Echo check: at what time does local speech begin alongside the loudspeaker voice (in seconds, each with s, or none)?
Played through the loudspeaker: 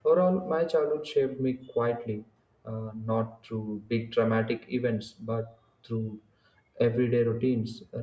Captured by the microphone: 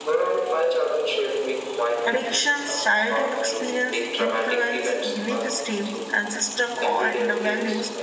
2.0 s